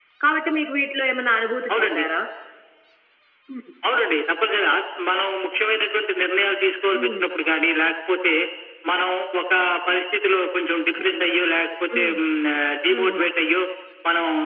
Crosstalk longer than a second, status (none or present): none